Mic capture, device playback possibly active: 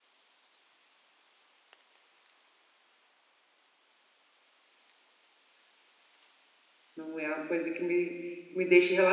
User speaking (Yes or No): Yes